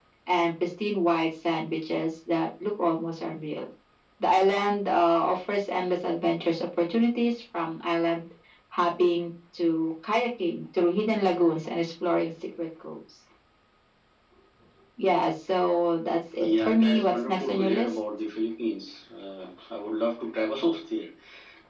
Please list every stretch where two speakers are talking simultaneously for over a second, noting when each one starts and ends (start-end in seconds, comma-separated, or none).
16.4-18.0